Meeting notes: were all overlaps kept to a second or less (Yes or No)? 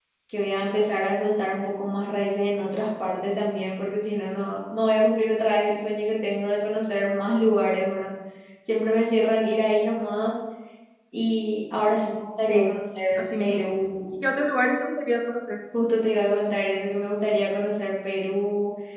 Yes